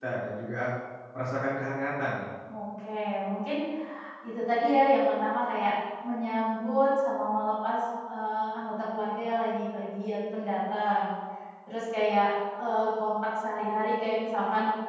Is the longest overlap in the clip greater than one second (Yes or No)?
No